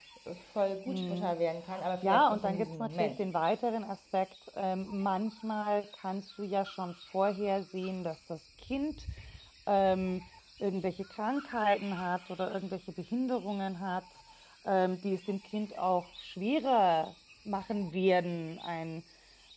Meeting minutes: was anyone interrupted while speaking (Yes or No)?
Yes